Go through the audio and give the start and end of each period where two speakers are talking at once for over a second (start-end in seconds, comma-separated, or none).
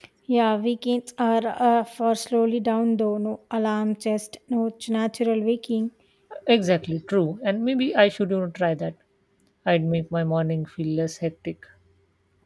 none